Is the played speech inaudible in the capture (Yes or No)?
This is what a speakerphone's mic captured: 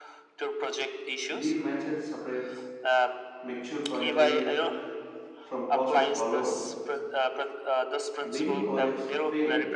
No